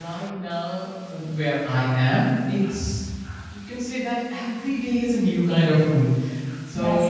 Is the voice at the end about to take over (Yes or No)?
No